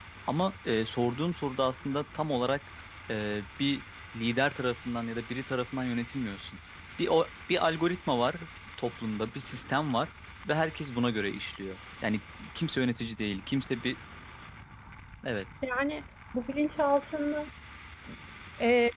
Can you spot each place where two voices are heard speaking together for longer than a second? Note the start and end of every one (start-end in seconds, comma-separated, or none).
none